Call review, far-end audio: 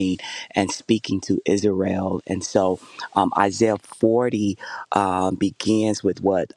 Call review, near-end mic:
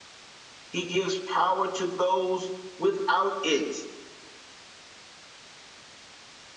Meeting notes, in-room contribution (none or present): present